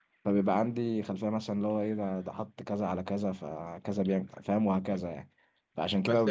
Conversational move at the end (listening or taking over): taking over